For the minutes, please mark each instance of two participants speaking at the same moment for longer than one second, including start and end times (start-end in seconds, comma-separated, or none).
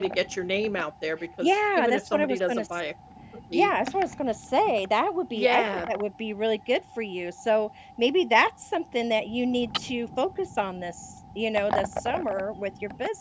1.4-2.6